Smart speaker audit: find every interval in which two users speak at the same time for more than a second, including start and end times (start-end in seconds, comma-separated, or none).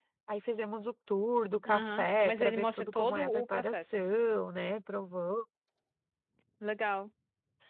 1.6-4.0